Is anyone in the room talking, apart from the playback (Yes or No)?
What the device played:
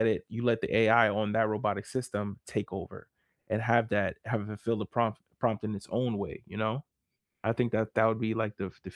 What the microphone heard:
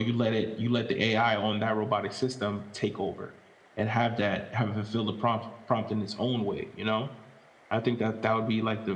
No